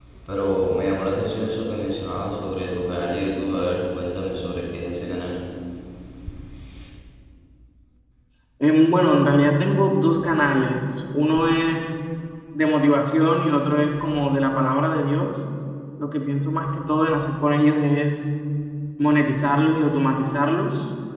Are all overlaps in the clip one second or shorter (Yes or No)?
Yes